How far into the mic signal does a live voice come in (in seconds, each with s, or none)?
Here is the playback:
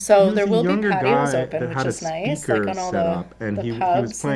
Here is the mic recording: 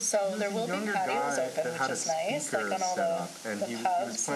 none